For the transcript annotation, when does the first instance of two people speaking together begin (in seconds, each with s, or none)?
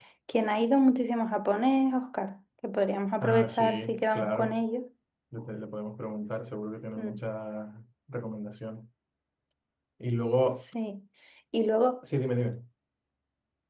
3.2 s